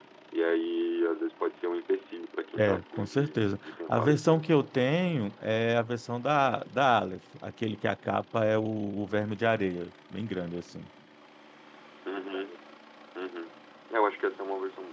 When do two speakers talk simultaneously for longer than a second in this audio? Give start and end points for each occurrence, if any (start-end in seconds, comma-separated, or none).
2.6-4.4